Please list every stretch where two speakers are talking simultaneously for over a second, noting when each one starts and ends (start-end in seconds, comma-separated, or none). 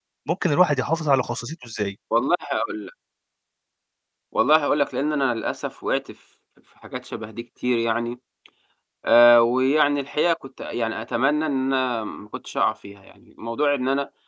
none